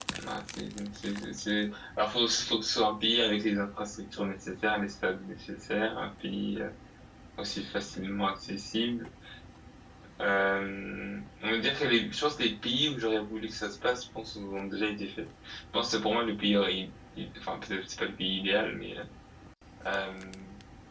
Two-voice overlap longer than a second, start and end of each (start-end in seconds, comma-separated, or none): none